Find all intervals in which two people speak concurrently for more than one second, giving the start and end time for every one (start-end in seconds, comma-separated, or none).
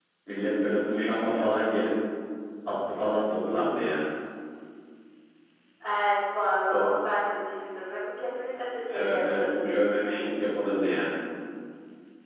8.9-10.2